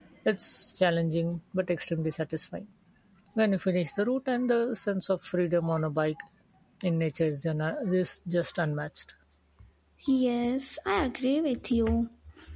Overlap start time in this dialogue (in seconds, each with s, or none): none